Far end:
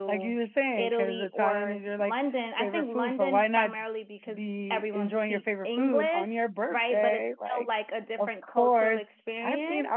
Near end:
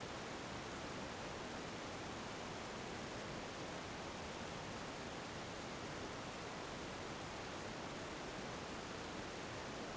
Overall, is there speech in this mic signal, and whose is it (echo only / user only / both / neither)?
neither